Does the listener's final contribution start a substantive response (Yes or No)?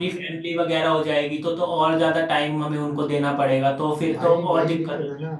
Yes